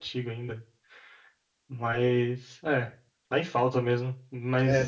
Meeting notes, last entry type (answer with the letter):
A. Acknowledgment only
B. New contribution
B